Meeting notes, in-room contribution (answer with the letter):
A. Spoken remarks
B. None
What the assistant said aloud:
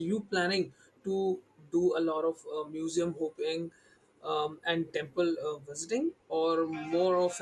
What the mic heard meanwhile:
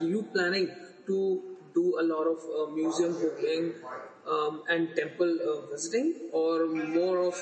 A